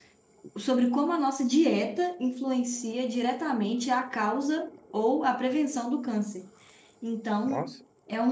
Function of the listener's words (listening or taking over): listening